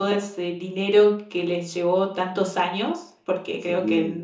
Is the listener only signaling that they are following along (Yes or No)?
Yes